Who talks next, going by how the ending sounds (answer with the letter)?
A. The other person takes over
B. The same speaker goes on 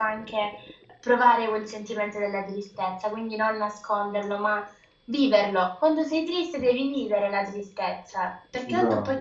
B